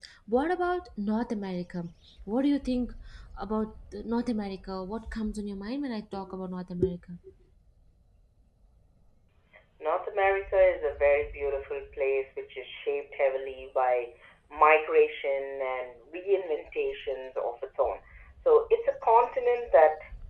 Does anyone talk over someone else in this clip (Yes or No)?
No